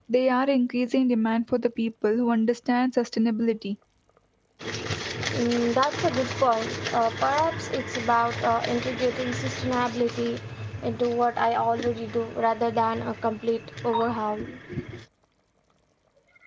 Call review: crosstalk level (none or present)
none